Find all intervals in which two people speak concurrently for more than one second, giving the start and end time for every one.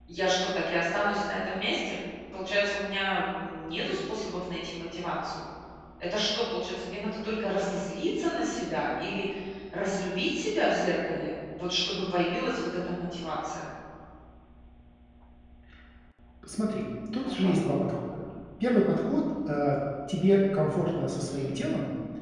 none

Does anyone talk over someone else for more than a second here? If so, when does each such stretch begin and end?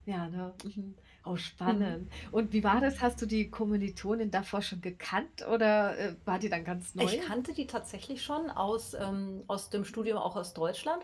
none

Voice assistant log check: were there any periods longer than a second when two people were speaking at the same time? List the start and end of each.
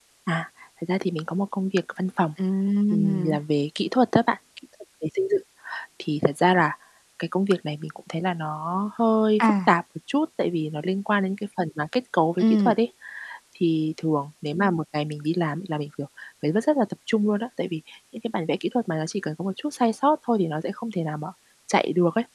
none

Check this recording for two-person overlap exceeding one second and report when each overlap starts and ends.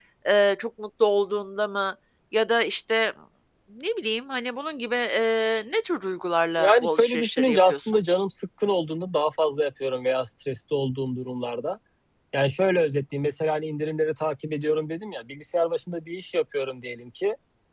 6.6-8.0

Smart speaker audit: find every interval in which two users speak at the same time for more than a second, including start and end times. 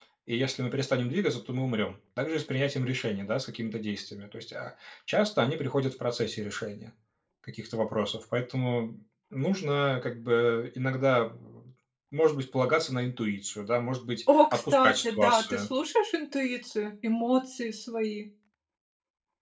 14.3-15.7

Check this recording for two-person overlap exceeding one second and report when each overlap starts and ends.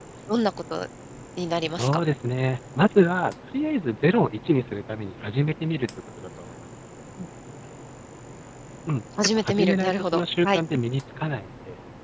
9.4-10.6

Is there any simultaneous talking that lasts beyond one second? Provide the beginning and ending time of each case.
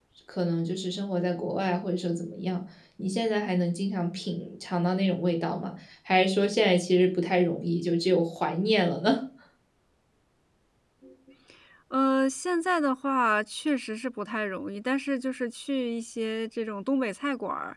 none

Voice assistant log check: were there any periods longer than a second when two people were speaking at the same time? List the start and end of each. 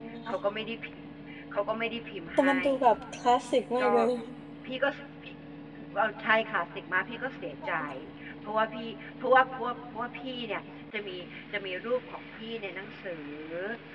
none

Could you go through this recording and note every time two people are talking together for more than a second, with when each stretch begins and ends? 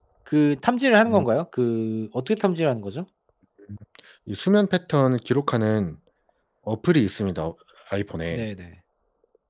none

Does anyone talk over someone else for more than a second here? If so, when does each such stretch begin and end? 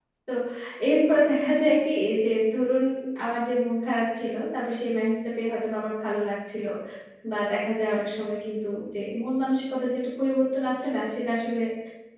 none

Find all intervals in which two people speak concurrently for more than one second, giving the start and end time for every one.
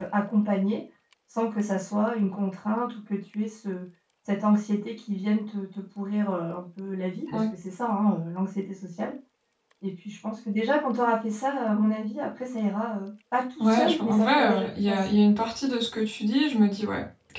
13.6-15.2

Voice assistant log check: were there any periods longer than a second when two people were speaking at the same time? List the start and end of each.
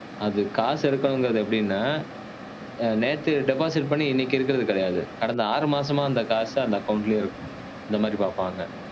none

